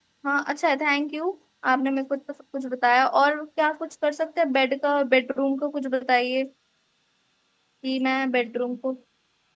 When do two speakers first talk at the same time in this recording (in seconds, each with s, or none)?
none